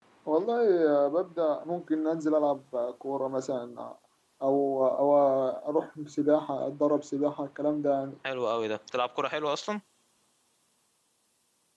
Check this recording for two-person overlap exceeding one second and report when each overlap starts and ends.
none

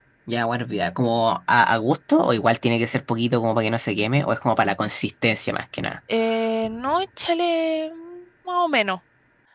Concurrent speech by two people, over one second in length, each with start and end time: none

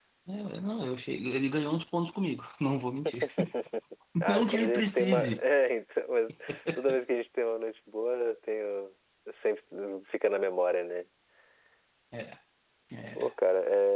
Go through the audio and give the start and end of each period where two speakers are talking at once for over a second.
4.2-5.4

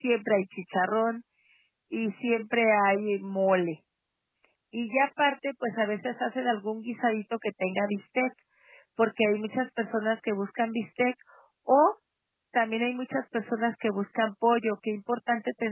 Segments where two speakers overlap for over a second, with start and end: none

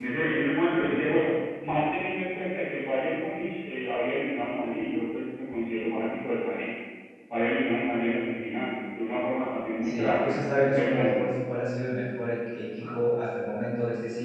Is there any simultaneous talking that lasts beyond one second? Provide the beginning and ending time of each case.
9.8-11.2

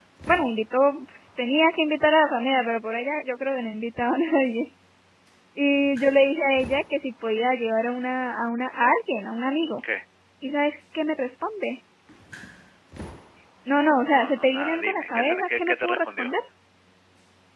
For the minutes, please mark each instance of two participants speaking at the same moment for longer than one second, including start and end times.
14.1-16.3

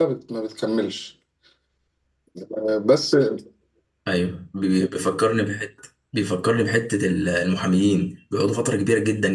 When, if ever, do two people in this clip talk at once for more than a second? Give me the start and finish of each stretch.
none

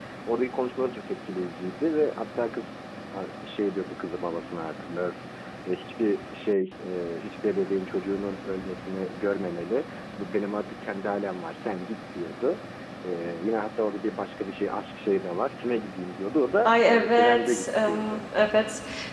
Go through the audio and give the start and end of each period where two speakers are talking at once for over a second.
16.6-18.2

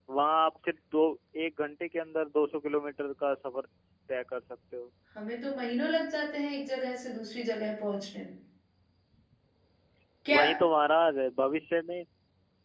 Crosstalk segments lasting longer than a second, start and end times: none

